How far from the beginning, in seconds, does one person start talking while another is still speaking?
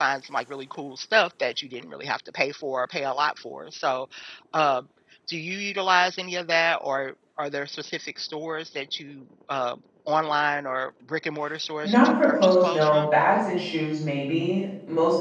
11.8 s

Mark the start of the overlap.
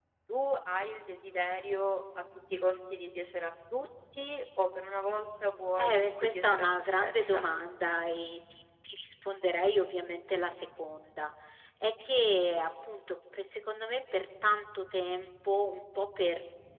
5.8 s

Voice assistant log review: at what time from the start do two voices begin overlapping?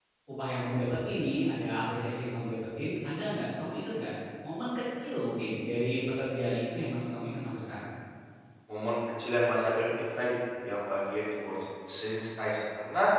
none

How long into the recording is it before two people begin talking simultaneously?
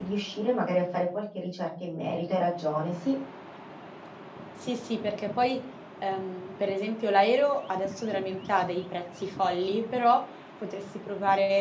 none

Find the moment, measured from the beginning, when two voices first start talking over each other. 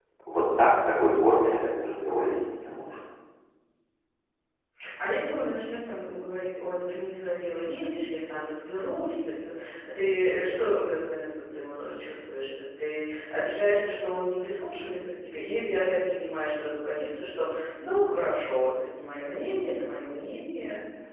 none

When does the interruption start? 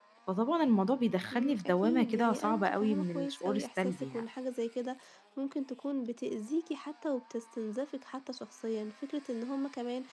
1.3 s

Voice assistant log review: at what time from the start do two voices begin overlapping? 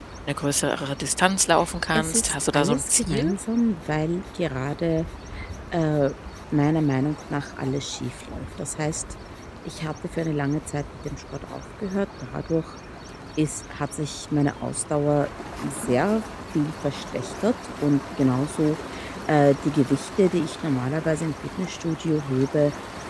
1.9 s

